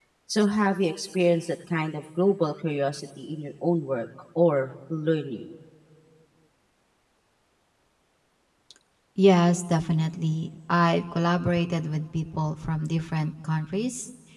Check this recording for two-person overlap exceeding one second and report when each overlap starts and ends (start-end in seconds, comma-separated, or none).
none